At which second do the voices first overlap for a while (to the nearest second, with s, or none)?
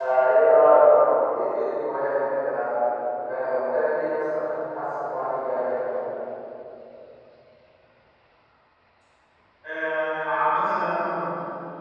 none